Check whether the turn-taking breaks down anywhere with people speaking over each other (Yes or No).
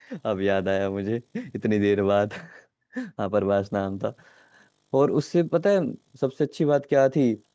No